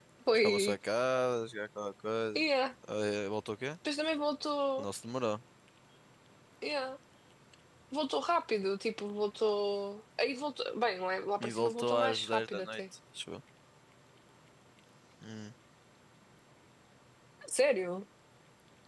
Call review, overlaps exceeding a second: present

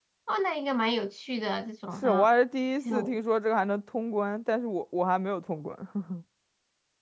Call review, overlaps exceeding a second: none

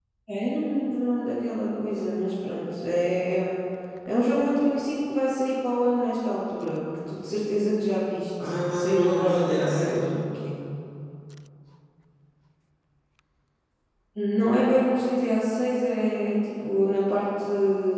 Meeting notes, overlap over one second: present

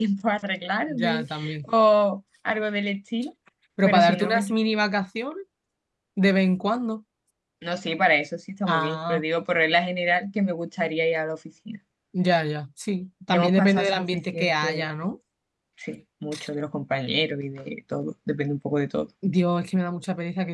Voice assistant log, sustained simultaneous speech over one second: present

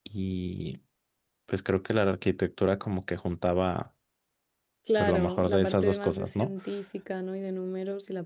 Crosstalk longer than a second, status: present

